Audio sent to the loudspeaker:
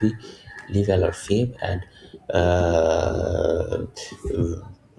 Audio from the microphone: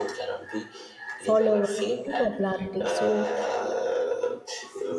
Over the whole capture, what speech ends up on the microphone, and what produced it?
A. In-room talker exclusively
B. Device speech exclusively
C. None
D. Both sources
D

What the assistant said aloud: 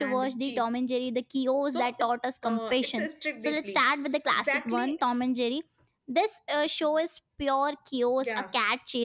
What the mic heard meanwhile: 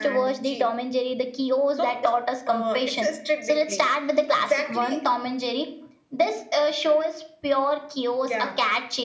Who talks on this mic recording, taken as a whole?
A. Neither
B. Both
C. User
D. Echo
D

